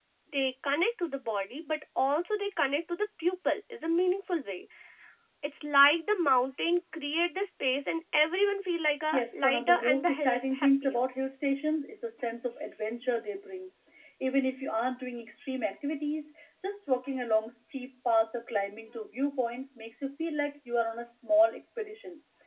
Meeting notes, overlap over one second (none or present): present